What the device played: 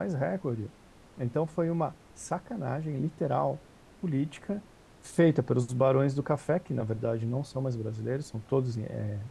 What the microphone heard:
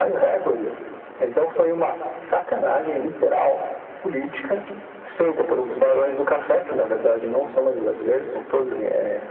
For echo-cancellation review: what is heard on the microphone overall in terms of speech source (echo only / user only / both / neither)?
echo only